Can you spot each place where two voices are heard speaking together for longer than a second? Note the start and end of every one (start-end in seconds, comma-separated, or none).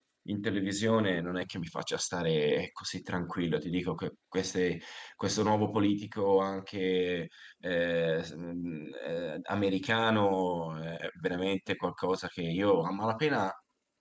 none